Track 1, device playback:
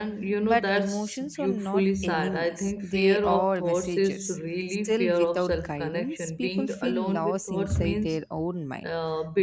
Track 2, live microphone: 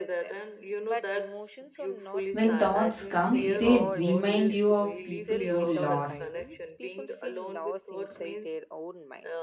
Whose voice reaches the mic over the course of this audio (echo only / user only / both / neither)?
both